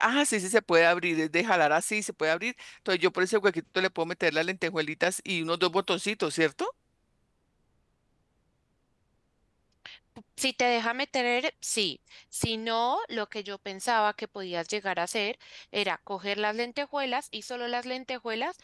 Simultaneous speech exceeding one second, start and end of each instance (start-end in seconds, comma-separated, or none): none